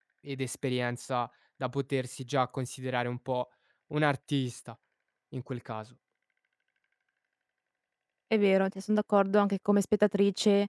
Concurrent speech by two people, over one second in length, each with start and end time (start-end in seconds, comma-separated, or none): none